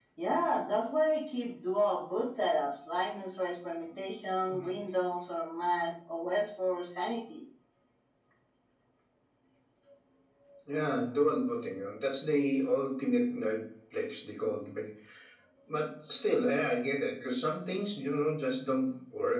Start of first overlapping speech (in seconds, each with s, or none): none